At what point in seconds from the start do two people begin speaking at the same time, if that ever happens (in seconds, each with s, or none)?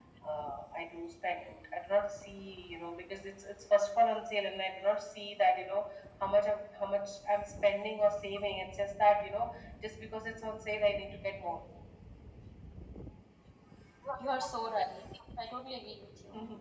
none